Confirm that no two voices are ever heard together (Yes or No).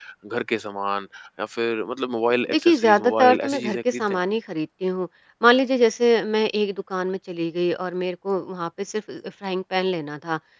No